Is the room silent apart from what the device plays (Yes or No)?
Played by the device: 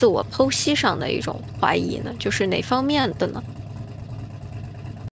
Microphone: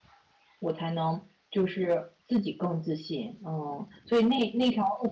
No